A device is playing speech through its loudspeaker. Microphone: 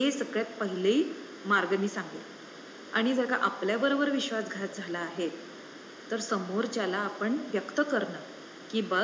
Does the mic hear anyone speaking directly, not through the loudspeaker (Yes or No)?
No